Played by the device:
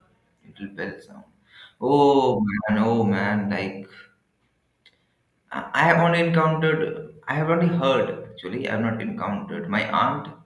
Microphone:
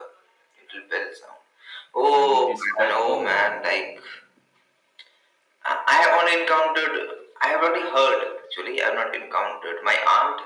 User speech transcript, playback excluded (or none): and which is quite common.